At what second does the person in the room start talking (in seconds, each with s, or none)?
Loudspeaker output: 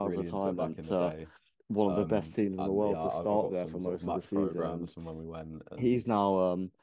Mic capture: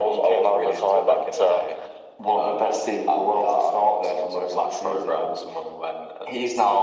none